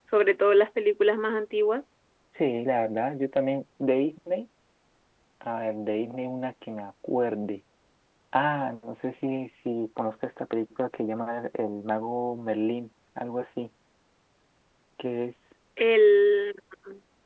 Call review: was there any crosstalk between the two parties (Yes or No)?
No